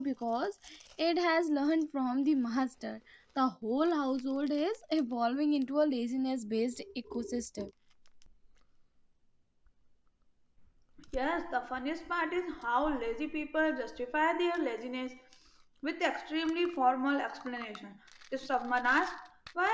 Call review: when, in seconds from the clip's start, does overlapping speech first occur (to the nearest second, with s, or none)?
none